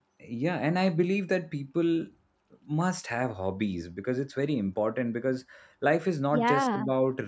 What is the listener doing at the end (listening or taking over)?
listening